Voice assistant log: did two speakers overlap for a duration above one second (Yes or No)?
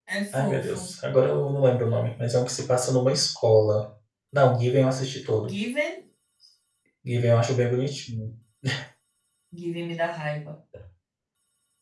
No